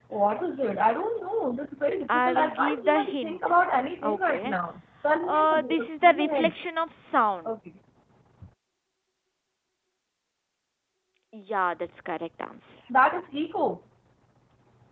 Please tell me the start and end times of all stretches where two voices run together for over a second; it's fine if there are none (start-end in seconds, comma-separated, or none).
2.1-3.4, 5.2-6.5